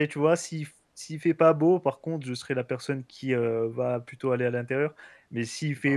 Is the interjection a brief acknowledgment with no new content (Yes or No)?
Yes